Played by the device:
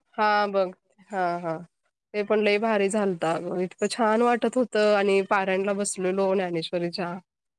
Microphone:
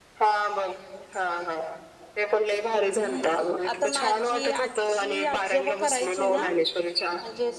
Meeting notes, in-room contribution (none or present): present